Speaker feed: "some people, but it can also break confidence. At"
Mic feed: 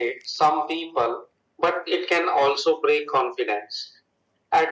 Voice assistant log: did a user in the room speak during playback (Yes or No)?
No